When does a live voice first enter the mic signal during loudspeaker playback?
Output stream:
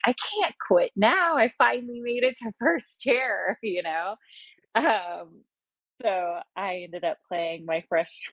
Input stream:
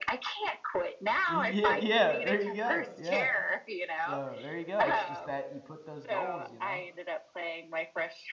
1.3 s

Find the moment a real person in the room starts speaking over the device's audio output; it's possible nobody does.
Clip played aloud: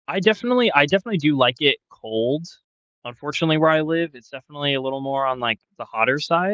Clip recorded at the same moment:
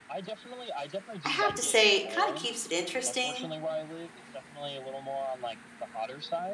1.2 s

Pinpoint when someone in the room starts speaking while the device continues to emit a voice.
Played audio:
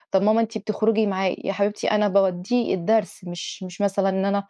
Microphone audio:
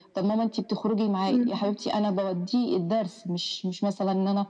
1.3 s

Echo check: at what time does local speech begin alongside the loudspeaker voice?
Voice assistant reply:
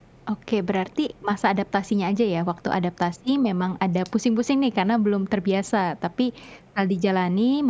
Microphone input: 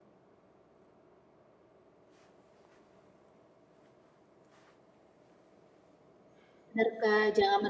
6.7 s

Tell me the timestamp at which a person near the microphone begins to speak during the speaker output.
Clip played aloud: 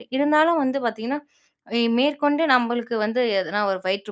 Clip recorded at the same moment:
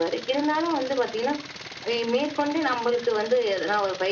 none

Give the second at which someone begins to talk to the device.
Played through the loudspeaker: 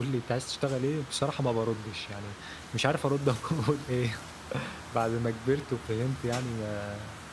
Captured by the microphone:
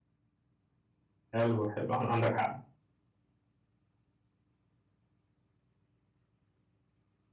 1.3 s

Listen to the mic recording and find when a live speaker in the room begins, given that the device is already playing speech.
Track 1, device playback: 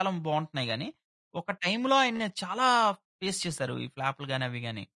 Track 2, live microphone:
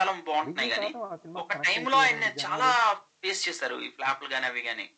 0.5 s

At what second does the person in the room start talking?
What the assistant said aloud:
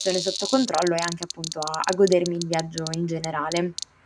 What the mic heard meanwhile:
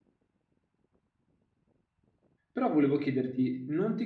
2.5 s

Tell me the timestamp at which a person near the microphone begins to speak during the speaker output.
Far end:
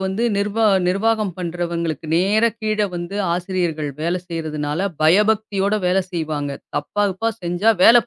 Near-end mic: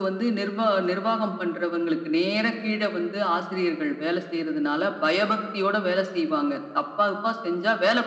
none

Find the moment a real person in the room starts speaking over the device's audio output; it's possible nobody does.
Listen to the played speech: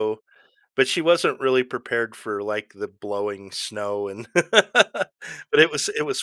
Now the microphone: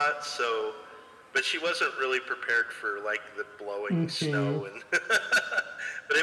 3.9 s

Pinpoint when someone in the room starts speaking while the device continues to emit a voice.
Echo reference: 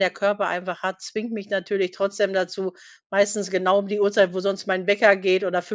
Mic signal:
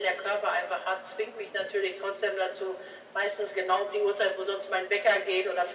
none

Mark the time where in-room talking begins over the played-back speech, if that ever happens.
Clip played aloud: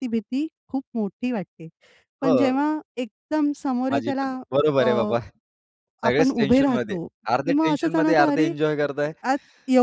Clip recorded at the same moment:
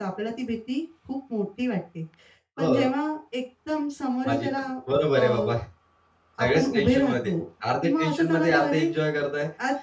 none

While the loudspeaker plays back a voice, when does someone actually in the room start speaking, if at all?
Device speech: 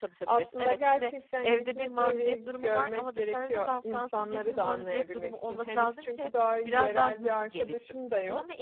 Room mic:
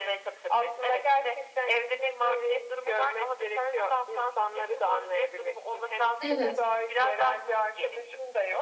6.2 s

